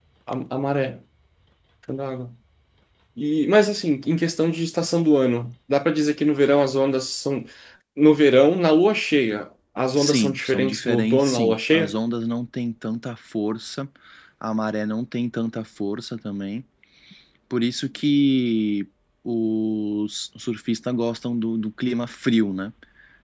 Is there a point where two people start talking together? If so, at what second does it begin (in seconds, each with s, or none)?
10.0 s